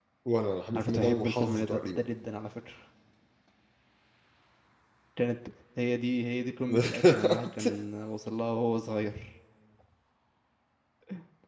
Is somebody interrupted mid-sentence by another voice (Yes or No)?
Yes